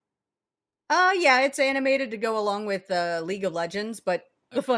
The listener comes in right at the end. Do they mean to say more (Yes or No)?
No